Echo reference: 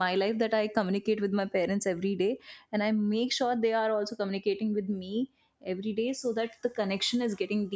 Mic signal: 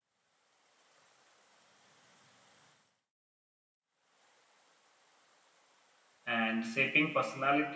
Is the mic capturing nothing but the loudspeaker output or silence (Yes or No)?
No